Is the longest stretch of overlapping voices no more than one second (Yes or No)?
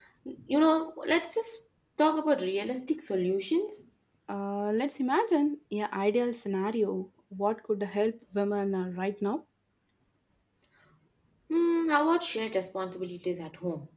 Yes